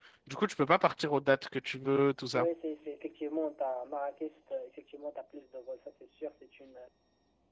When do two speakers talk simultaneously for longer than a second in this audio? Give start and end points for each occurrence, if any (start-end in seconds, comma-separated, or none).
none